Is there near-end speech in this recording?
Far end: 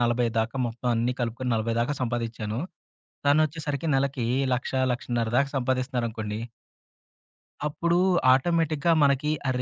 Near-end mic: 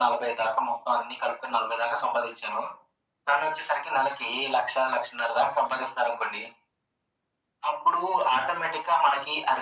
No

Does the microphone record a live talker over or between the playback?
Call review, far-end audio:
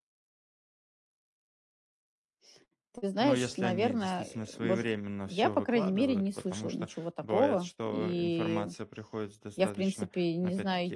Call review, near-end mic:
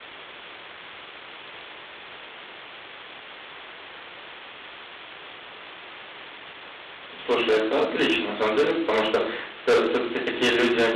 Yes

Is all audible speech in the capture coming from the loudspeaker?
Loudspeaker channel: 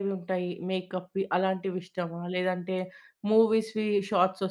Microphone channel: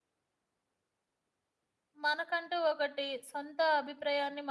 No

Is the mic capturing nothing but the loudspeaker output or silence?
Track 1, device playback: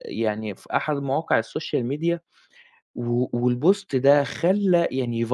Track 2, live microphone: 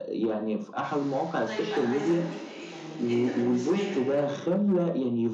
No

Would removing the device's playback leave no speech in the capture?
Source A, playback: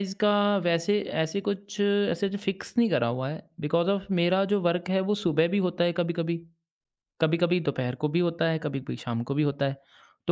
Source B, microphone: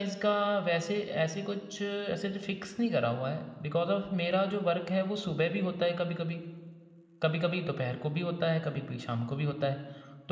Yes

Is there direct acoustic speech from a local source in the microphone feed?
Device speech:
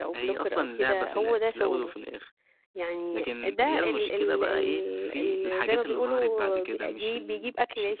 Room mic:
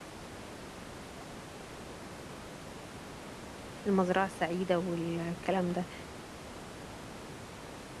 Yes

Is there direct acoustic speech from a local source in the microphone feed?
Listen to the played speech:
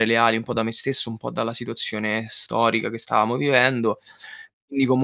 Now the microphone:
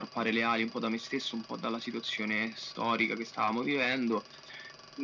No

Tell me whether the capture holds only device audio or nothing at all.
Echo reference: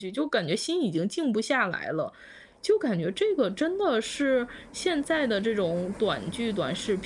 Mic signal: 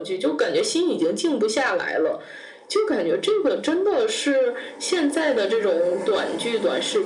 Yes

